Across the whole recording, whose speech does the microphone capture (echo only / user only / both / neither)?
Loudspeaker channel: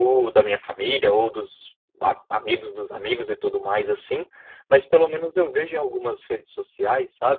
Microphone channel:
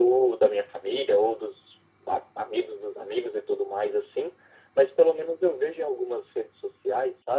echo only